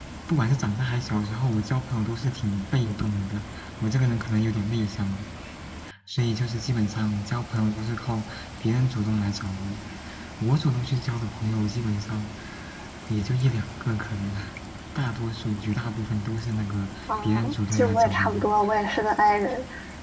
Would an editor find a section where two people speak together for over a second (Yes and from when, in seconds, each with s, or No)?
Yes, from 17.1 s